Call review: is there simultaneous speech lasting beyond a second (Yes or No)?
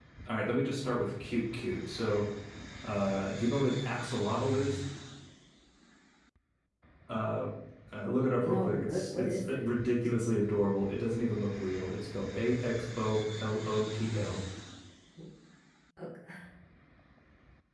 Yes